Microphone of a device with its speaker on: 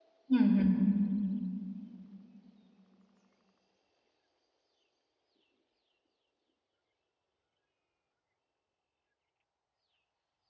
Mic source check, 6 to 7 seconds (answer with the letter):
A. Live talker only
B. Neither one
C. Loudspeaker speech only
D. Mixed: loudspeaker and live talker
B